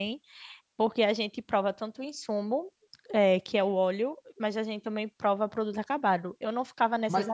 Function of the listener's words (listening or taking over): listening